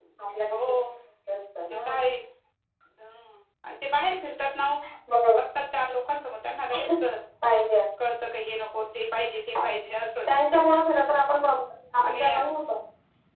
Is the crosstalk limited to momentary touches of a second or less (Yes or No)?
Yes